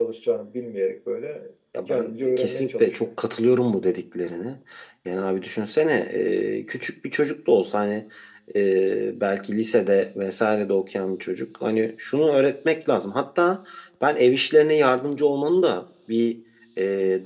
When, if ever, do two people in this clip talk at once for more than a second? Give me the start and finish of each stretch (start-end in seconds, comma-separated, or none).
1.9-3.1